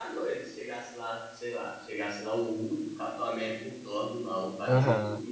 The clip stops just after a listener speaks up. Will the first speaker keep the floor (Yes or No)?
No